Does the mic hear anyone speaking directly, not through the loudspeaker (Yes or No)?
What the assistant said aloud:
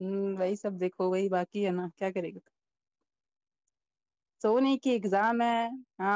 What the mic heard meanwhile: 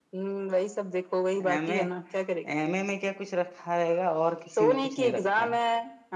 Yes